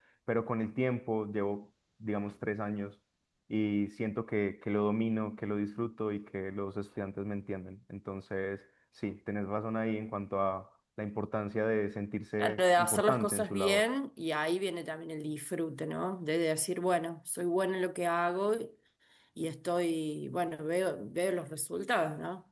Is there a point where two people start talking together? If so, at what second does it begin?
12 s

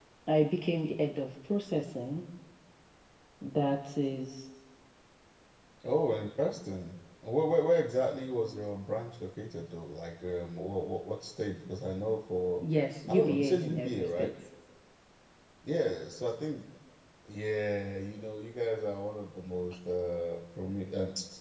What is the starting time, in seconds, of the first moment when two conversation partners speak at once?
13 s

